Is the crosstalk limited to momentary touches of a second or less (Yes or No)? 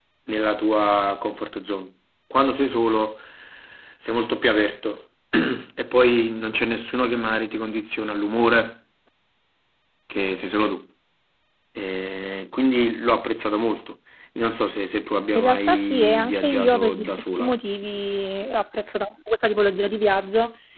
No